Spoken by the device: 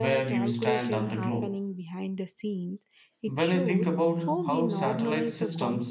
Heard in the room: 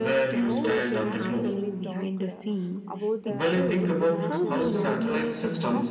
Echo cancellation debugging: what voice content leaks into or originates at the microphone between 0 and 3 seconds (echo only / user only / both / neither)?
both